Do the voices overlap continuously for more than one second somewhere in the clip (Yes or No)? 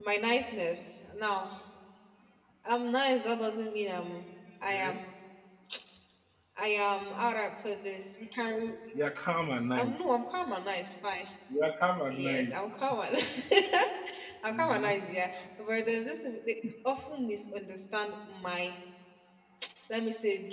No